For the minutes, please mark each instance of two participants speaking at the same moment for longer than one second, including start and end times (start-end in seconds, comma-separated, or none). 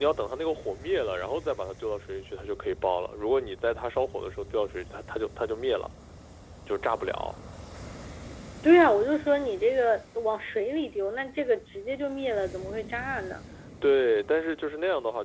none